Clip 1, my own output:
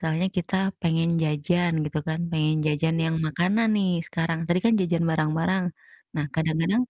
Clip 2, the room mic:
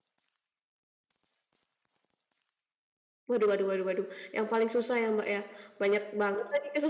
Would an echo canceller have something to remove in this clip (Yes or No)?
No